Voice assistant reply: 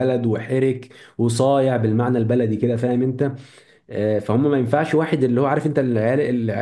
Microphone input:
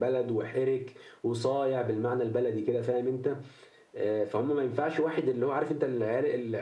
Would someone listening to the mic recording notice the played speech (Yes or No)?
Yes